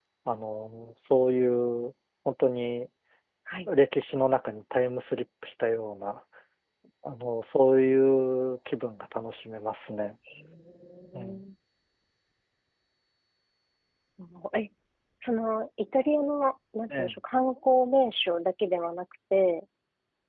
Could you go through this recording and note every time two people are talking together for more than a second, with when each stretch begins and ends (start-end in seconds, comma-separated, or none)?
none